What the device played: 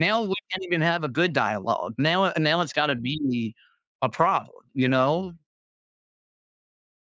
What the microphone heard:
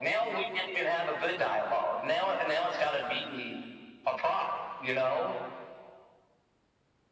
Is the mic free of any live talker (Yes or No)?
Yes